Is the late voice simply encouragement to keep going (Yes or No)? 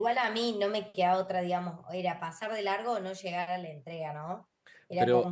Yes